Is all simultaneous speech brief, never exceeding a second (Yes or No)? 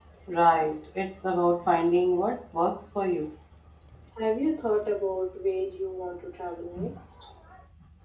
Yes